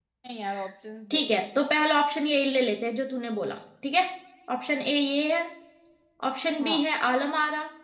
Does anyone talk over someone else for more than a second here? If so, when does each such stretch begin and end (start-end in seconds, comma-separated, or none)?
none